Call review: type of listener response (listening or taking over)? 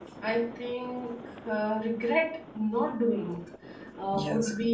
listening